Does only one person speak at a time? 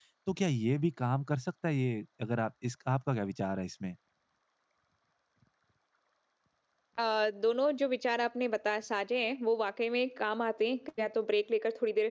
Yes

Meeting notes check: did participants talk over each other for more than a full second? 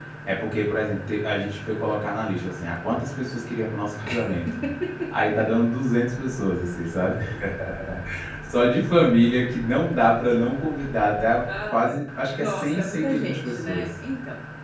Yes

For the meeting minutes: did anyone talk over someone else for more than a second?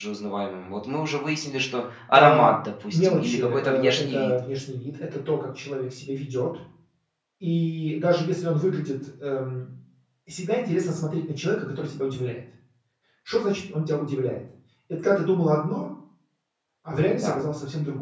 Yes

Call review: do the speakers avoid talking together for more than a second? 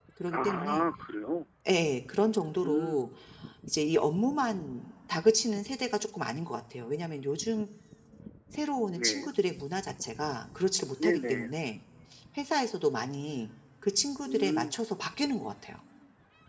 Yes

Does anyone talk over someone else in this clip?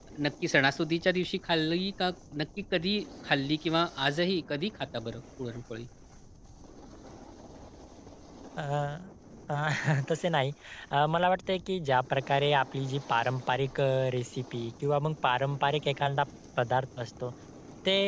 No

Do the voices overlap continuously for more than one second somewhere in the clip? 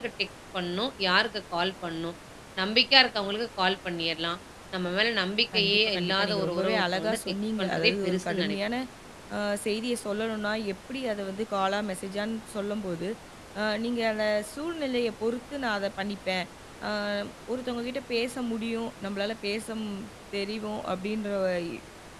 Yes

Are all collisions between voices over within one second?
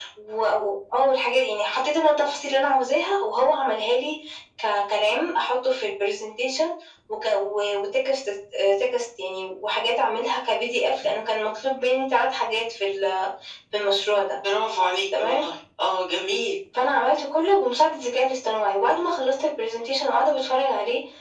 Yes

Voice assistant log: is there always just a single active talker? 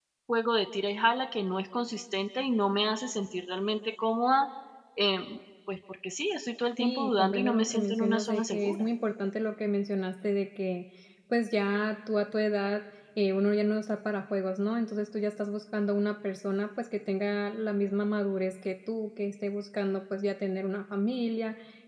No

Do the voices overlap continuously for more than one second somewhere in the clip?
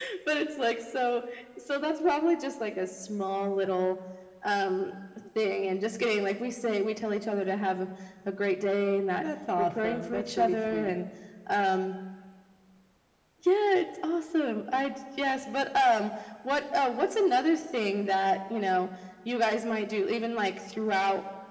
Yes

